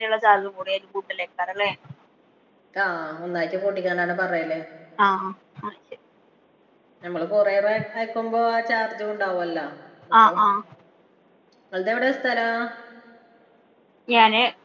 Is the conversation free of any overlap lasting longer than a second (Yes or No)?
Yes